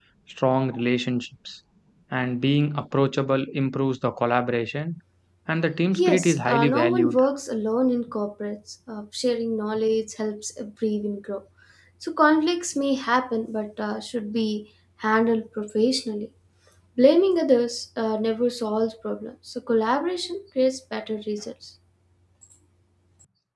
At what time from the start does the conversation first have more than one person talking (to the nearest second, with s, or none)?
6 s